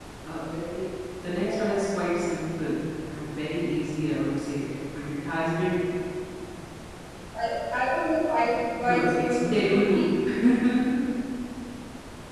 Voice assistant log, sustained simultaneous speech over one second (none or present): present